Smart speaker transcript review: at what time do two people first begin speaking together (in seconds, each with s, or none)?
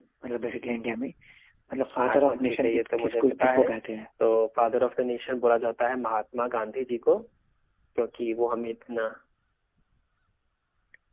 2.1 s